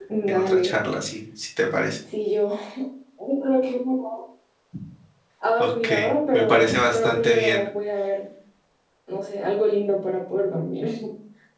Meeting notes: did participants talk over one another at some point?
Yes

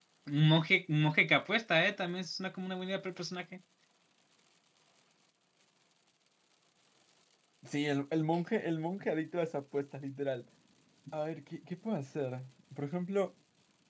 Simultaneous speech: No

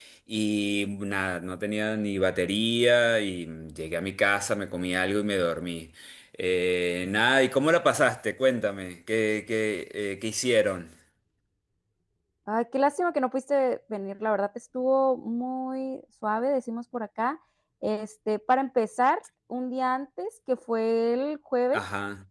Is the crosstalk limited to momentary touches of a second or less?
Yes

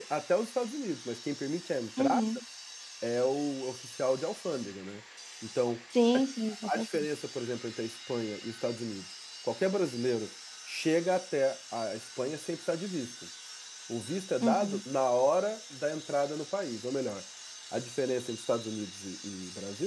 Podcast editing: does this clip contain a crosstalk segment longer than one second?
No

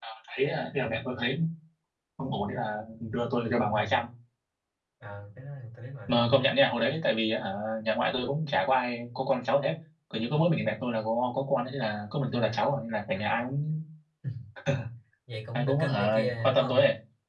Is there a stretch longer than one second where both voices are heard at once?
Yes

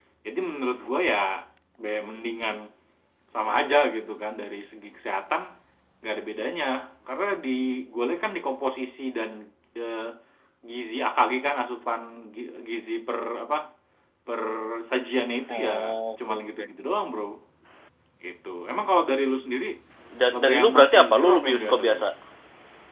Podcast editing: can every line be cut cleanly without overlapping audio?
No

